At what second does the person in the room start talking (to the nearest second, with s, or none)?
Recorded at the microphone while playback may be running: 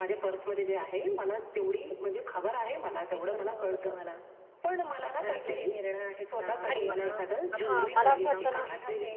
7 s